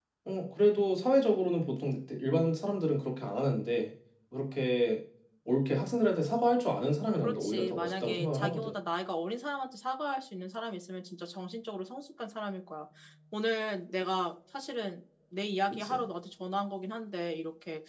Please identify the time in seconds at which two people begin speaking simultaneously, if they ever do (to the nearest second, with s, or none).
7 s